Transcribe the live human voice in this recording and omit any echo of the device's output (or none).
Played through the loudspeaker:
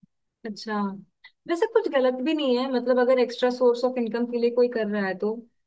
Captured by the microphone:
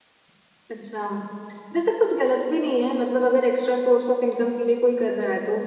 none